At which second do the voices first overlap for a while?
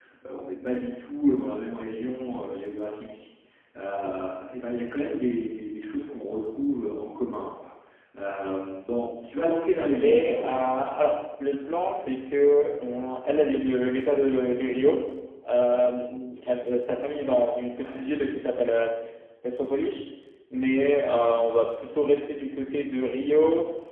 9.8 s

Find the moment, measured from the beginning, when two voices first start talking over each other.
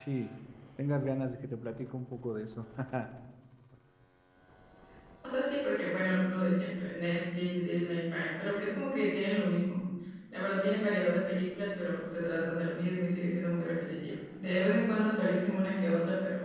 none

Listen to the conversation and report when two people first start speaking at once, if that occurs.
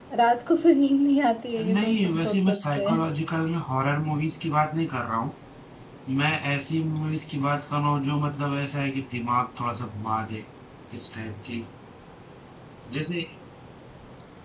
1.6 s

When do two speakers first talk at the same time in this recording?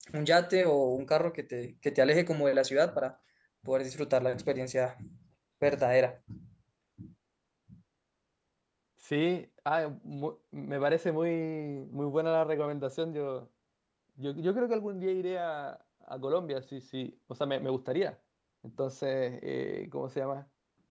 none

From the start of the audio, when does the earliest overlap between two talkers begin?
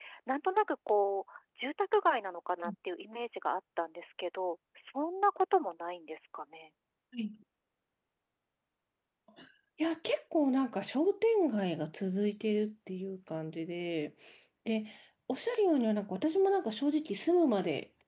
none

